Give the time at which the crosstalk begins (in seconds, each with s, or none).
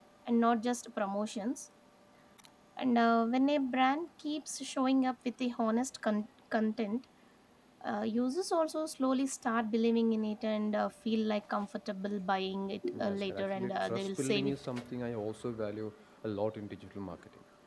12.9 s